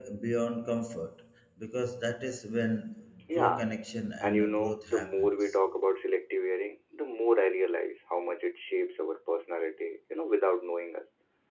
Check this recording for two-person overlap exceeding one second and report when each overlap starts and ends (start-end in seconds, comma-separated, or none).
4.2-5.6